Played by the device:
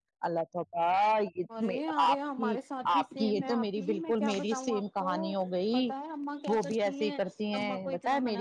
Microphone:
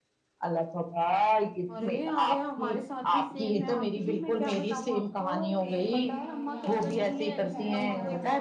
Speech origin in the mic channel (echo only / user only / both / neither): both